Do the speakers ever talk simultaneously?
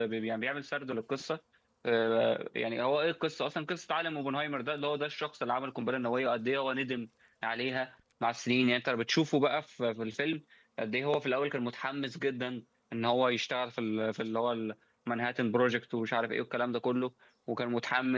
No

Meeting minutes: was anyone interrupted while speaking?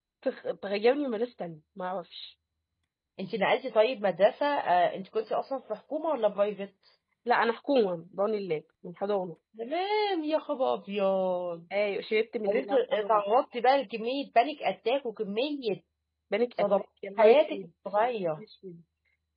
Yes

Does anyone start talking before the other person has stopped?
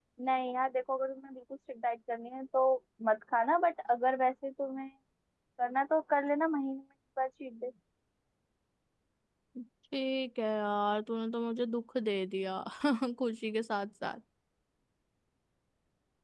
No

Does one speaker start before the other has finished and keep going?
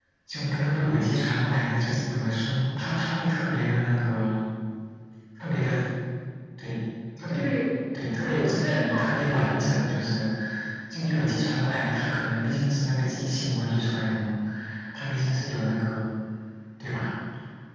Yes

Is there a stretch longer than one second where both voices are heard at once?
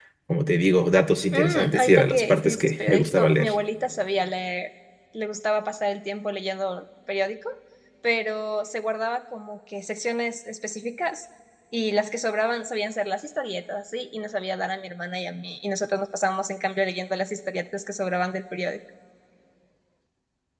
Yes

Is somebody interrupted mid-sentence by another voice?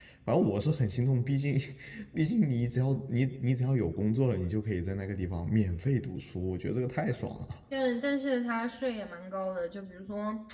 No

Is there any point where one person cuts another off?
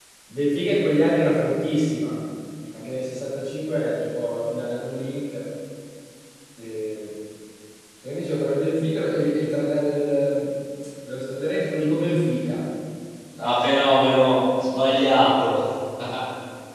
No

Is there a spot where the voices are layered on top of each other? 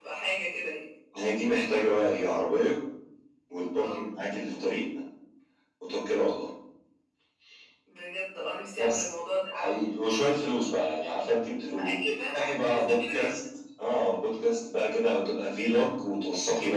Yes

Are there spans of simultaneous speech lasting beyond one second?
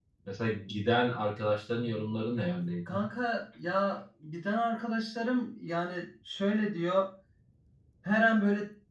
No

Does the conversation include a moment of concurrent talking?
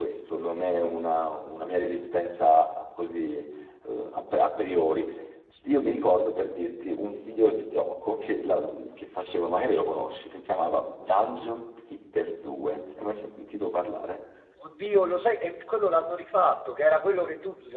No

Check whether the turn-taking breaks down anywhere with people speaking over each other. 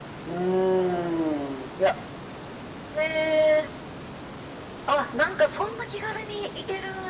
No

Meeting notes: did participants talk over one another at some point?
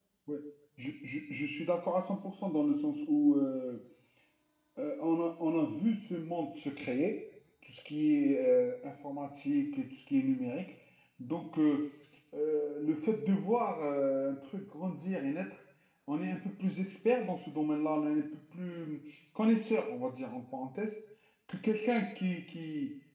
No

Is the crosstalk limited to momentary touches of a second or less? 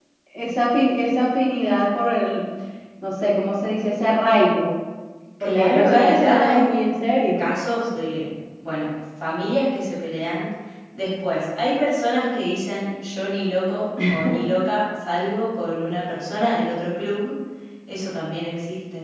No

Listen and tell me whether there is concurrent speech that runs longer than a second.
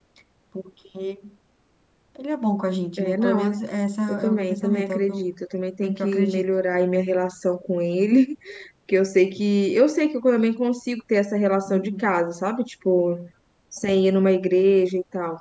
Yes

